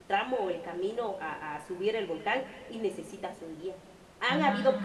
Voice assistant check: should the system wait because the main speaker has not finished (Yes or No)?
Yes